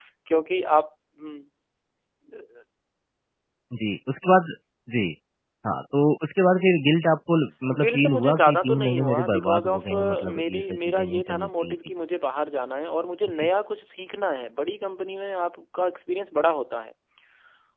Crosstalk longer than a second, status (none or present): present